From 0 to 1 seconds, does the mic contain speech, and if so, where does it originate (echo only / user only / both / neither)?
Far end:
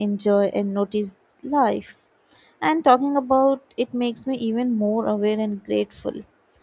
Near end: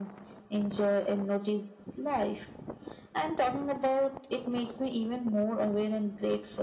echo only